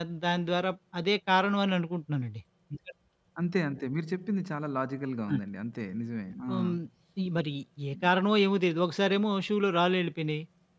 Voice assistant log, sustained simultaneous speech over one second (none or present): none